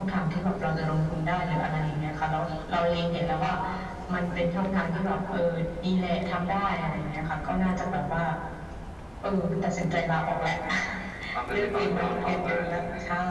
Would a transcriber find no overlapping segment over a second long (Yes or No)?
No